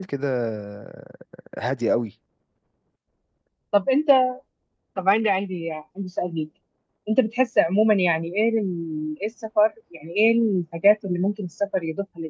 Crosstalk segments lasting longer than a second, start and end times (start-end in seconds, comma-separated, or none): none